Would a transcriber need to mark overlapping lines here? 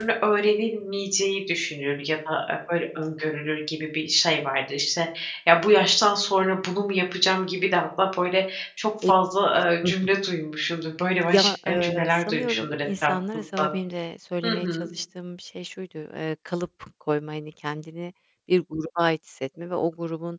Yes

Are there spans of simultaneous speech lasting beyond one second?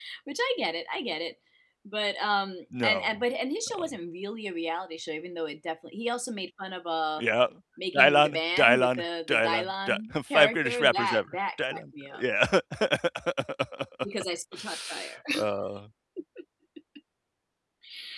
Yes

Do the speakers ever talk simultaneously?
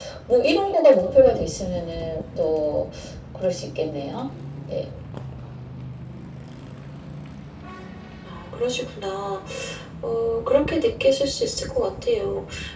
No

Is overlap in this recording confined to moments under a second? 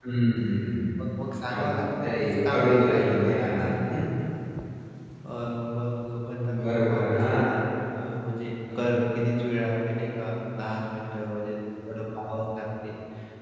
No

